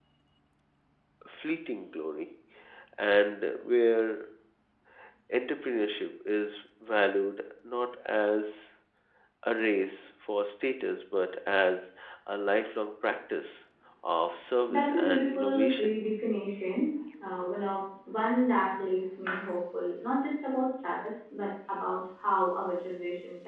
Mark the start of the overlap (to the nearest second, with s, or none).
15 s